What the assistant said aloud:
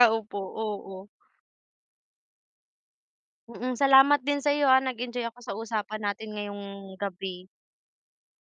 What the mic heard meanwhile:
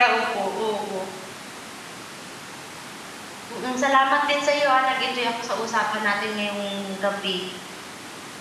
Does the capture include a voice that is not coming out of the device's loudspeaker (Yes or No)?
No